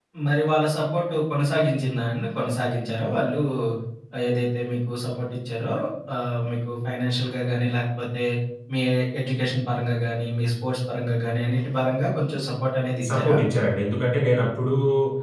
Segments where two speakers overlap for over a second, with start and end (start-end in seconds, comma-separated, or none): none